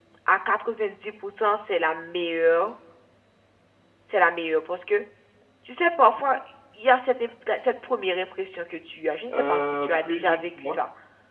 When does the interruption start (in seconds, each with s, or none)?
9.3 s